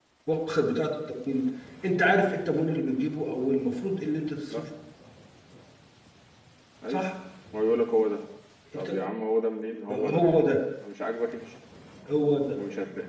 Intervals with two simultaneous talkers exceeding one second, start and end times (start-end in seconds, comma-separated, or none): none